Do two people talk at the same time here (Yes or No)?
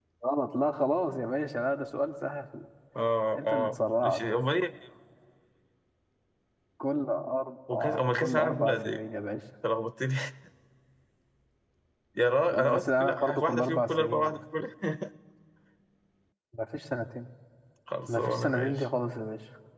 Yes